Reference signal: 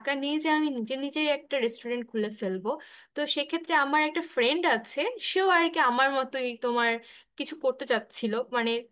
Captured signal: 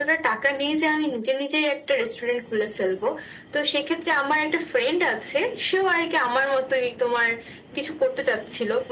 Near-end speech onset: none

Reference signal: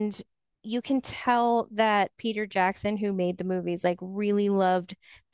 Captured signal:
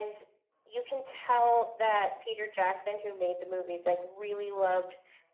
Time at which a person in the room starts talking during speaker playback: none

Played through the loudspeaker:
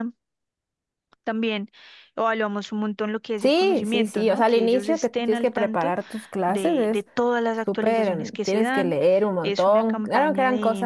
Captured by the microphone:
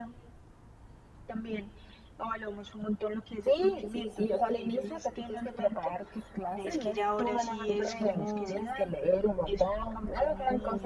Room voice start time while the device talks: 6.6 s

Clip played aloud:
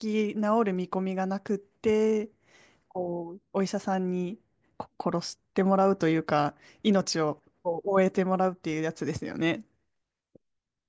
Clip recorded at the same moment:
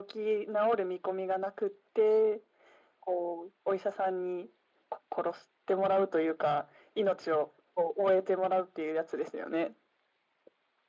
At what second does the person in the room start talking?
none

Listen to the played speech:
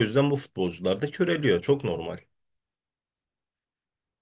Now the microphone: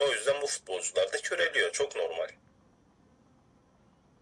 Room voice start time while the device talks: none

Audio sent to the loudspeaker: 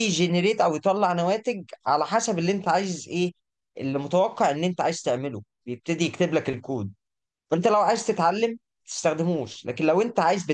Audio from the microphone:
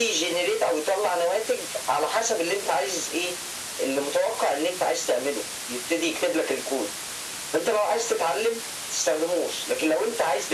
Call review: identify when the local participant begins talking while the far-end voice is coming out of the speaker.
none

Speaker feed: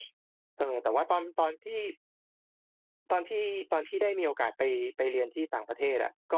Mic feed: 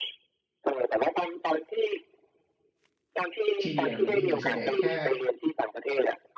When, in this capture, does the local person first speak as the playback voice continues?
3.6 s

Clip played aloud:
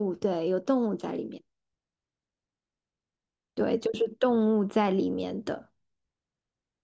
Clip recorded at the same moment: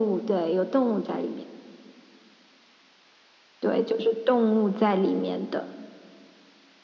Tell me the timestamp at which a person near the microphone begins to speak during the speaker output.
none

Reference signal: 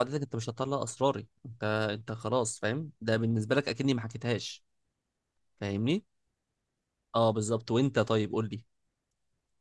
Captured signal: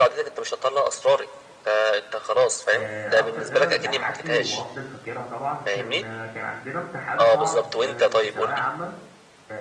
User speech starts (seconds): 2.7 s

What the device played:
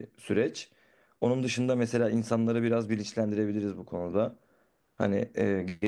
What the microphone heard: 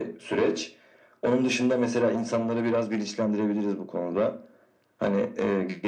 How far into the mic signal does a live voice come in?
none

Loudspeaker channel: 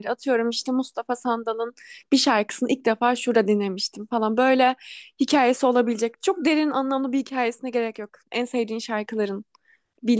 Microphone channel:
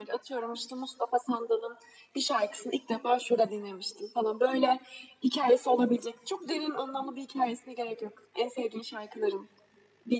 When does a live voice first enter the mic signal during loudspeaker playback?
none

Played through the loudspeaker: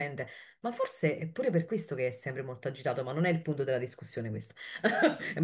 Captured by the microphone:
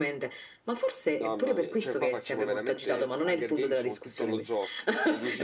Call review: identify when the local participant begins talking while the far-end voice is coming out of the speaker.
1.2 s

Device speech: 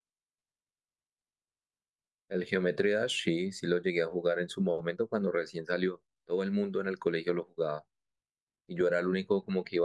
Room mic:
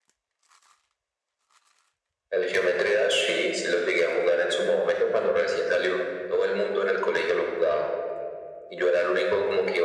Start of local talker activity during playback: none

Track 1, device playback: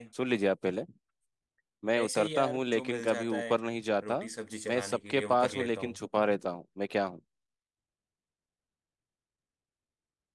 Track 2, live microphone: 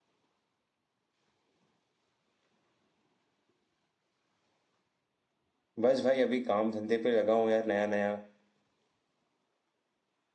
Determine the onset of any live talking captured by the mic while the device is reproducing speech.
5.8 s

